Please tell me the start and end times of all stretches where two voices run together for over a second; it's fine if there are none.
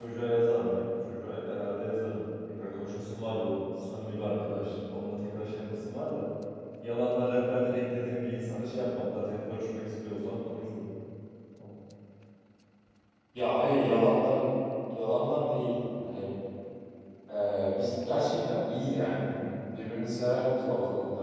none

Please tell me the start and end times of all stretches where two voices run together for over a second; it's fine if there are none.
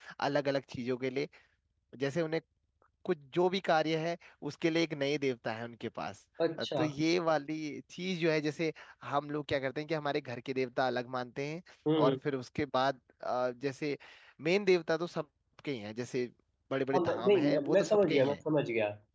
16.9-18.4

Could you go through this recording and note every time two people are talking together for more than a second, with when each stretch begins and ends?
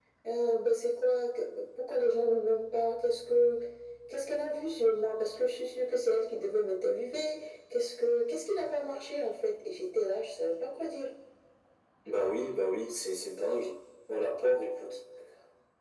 none

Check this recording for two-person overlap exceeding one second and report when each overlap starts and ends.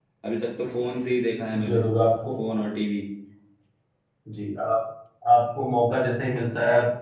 none

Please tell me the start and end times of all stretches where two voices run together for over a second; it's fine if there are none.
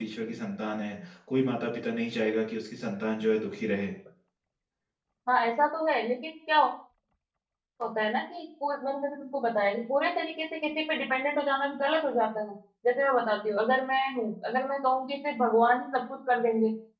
none

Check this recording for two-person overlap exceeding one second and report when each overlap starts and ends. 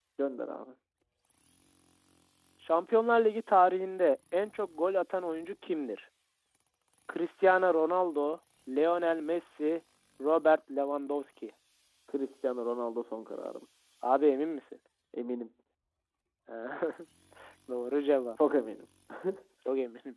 none

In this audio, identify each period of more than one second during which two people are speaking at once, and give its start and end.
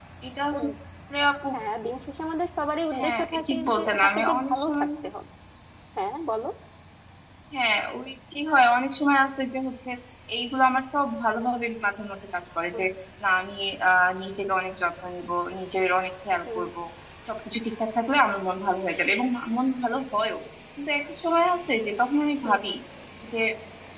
3.0-4.9

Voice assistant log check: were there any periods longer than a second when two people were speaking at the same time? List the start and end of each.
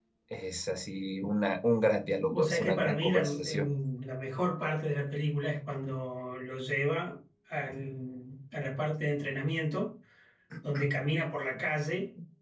2.3-3.7

